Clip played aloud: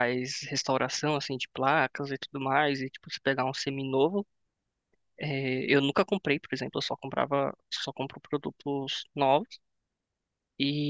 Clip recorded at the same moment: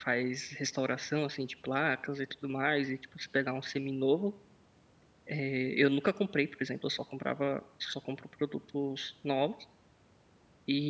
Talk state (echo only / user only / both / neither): echo only